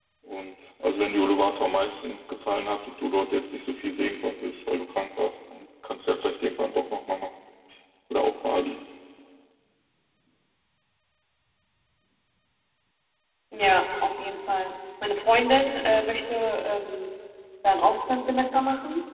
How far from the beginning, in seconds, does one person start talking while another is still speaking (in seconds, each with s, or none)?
none